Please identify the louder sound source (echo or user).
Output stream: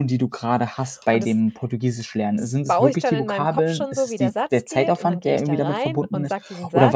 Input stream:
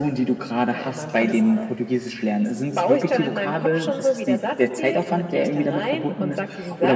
echo